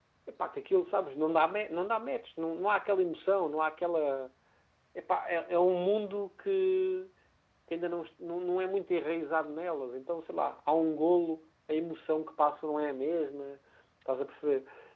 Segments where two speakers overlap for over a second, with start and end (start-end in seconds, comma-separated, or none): none